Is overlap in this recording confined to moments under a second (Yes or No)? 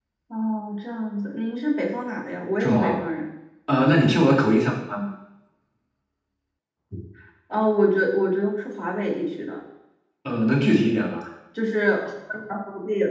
Yes